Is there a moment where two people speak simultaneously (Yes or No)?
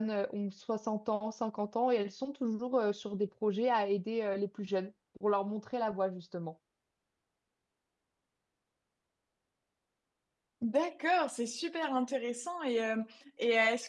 No